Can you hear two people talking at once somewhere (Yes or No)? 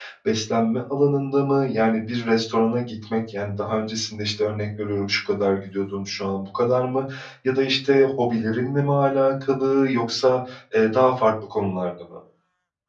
No